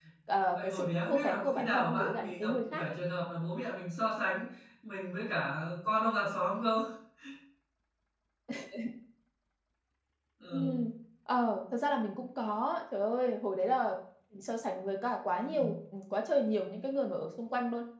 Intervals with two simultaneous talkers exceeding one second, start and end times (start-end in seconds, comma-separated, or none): 0.6-2.8